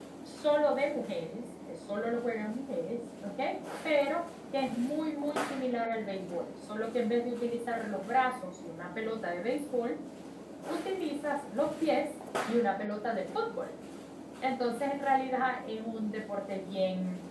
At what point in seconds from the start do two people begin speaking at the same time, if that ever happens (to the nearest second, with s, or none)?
none